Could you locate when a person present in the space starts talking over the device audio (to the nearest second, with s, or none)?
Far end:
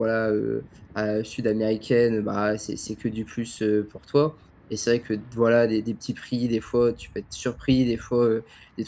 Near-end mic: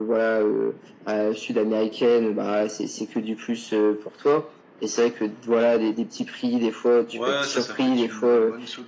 7 s